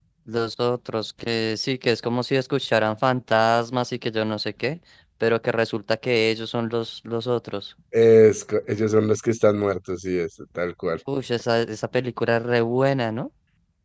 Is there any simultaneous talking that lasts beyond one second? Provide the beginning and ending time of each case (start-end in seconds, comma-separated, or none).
none